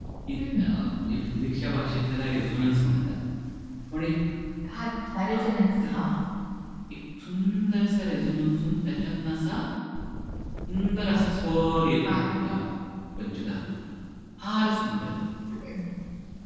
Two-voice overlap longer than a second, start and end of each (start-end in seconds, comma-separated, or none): none